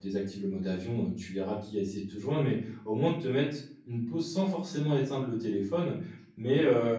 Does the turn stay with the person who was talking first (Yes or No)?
Yes